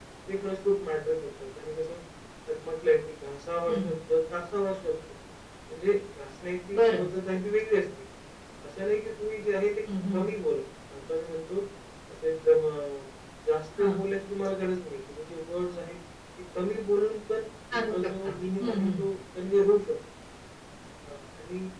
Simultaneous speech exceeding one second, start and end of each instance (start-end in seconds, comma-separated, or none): 17.7-19.0